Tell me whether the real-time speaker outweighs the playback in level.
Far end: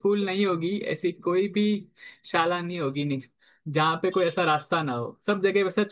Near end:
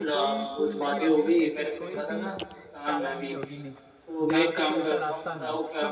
Yes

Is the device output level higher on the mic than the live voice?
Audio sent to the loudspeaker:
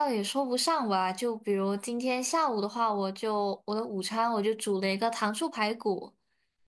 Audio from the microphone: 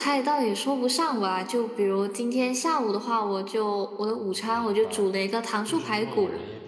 Yes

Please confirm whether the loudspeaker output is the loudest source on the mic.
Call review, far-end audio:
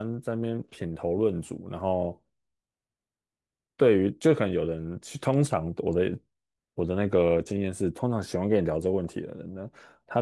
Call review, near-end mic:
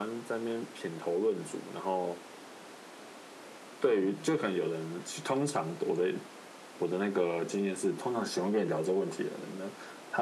Yes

